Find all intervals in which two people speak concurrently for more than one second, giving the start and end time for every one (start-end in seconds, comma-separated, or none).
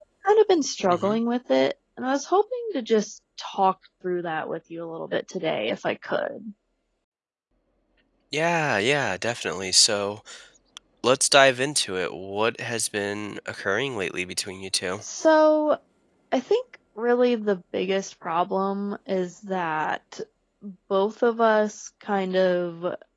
none